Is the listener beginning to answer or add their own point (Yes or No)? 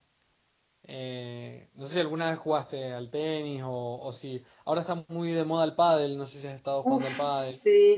Yes